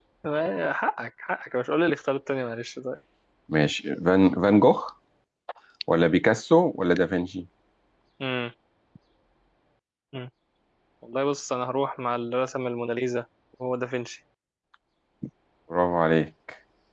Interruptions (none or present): none